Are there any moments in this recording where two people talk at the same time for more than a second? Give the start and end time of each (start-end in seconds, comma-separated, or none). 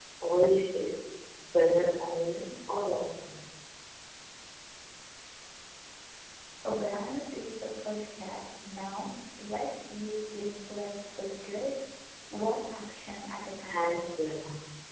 none